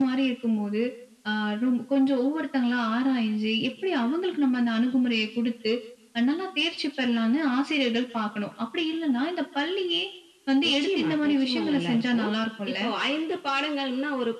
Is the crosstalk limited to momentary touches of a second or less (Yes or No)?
No